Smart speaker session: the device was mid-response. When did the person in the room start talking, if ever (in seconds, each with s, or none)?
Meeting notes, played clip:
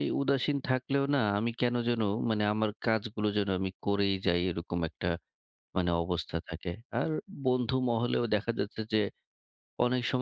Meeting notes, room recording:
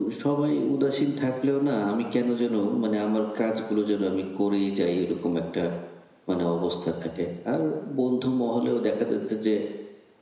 none